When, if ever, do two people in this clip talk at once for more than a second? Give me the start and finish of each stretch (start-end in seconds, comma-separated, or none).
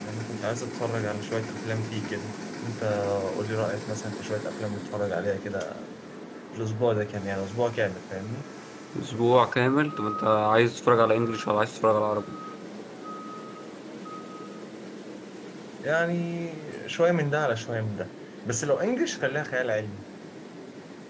none